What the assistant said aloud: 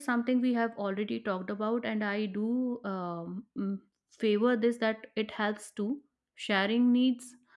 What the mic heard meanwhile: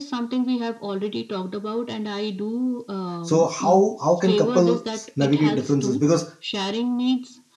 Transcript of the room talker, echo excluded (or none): so how how can couples navigate differences? Because